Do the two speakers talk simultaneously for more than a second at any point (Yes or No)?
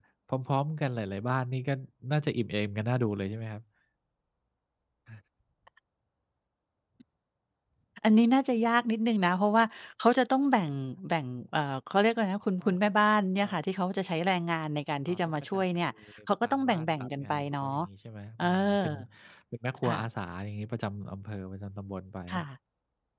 Yes